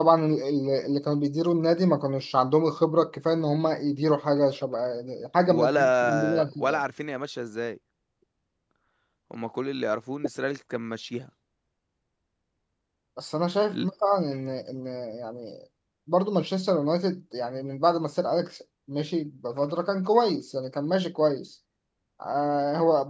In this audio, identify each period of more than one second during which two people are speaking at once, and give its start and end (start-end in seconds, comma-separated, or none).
5.5-6.8